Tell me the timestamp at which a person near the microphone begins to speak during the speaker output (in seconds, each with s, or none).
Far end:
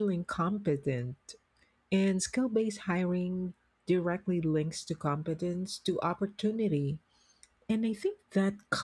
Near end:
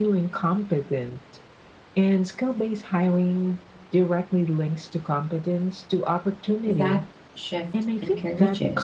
6.6 s